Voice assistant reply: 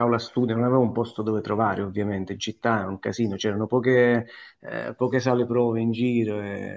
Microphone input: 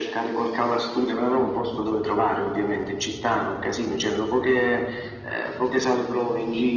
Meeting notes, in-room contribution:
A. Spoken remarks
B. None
B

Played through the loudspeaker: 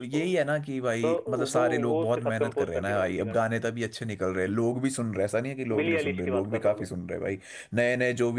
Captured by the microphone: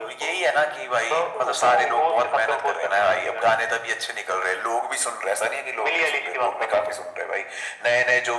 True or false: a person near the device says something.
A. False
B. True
A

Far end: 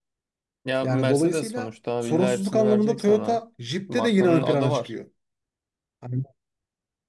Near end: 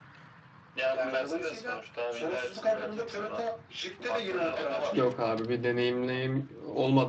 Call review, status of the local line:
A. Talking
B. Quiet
A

